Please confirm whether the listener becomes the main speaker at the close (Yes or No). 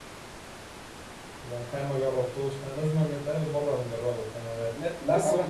Yes